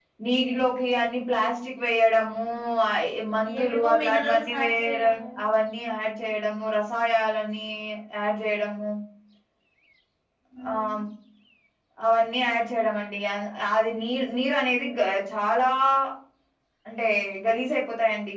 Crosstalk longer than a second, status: present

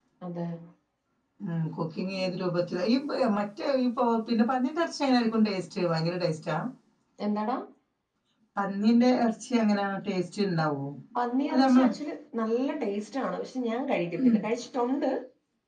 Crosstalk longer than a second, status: none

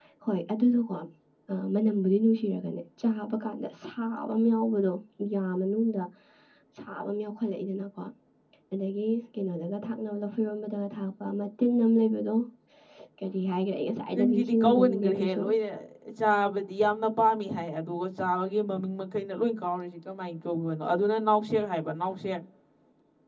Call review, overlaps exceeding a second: present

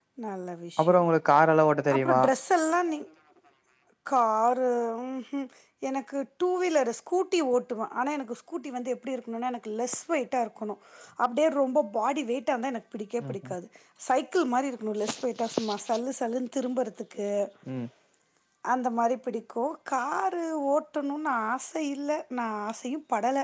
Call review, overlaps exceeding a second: none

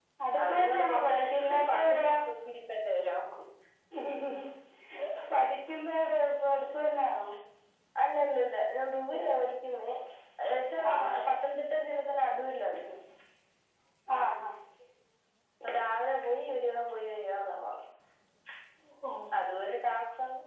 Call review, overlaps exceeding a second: present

